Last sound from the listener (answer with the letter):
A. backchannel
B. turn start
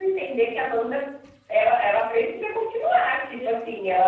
A